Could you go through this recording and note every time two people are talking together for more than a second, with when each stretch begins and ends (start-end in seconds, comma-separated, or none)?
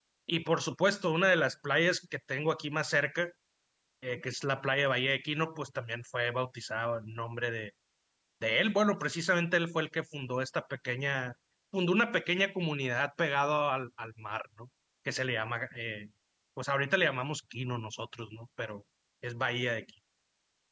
none